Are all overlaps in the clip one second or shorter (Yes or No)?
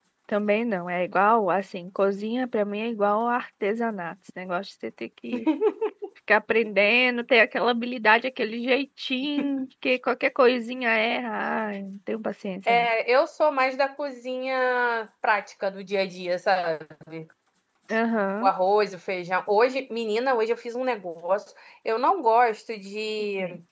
Yes